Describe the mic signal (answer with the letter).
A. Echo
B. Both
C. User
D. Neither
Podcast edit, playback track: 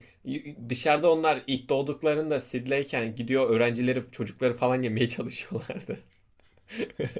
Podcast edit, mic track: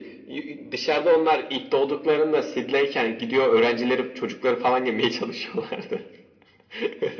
A